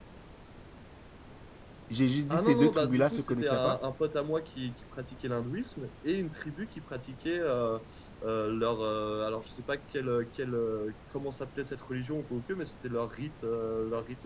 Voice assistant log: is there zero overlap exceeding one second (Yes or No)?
No